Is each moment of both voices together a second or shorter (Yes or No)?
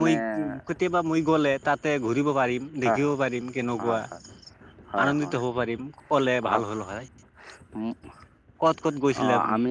Yes